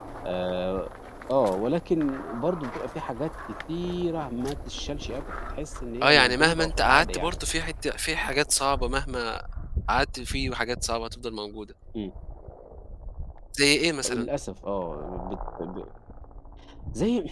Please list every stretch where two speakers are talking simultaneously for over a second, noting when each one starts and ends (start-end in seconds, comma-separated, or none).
6.0-7.3